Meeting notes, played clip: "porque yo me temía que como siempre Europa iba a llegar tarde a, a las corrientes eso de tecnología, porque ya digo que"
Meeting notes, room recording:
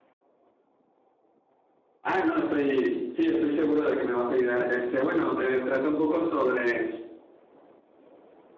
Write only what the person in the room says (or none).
Ah, no, estoy, sí, estoy seguro de que me vas a ayudar. Este, bueno, eh, trata un poco sobre